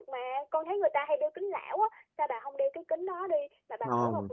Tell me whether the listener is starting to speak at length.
Yes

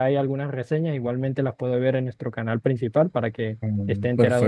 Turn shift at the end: Yes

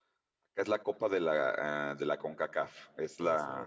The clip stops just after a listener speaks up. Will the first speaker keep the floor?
Yes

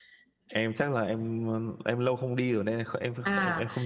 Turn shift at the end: Yes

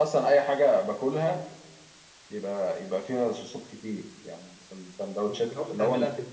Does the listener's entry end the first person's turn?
Yes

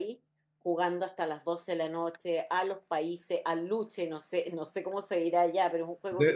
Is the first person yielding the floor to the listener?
Yes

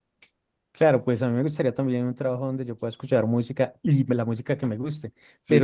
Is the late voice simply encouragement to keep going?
Yes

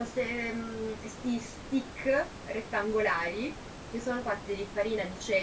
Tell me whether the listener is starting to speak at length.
No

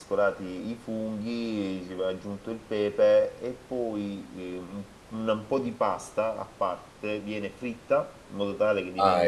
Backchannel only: Yes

